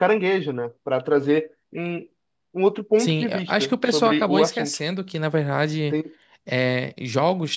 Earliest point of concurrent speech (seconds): 3.0 s

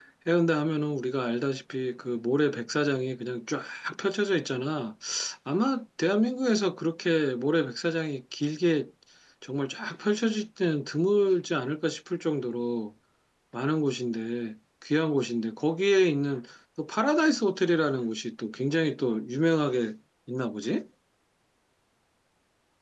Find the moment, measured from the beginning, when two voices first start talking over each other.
none

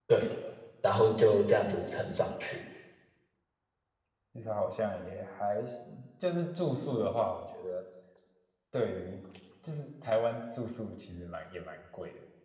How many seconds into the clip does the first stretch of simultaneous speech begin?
none

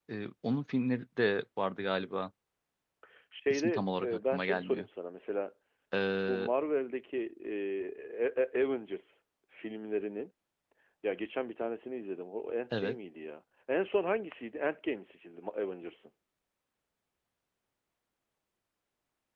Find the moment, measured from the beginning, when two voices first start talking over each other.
3.5 s

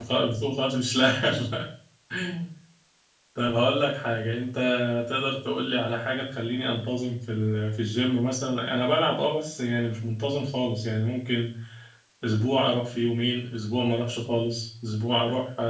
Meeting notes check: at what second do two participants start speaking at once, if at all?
none

